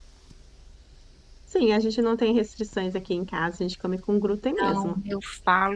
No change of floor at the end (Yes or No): No